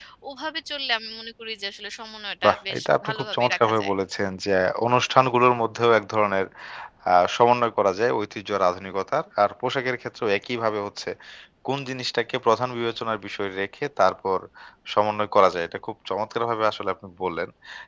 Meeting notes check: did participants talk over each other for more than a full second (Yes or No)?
Yes